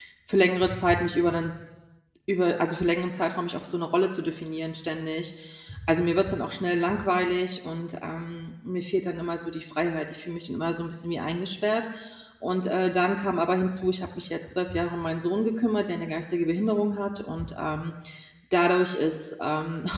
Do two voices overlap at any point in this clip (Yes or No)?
No